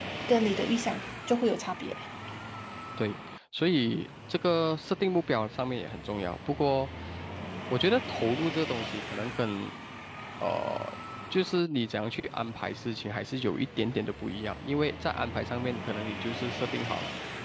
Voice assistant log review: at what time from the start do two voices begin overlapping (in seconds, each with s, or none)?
none